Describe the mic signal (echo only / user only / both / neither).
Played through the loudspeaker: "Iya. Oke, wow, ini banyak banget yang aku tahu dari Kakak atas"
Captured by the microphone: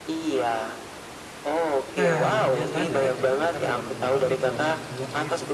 both